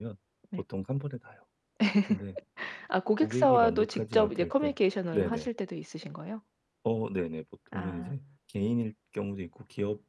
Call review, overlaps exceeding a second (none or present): present